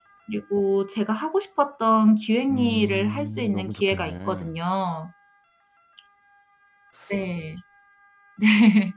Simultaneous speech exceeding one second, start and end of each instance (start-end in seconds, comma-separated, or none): 2.5-4.5